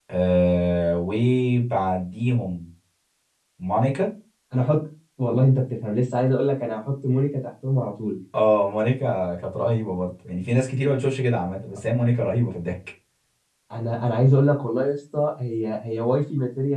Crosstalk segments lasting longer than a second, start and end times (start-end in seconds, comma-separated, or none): none